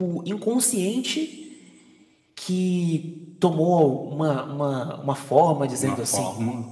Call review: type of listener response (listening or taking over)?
taking over